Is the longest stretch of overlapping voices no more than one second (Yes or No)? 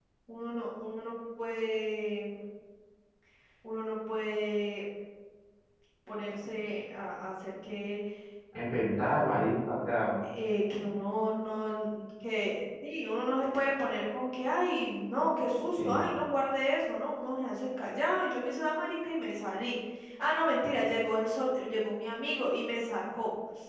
Yes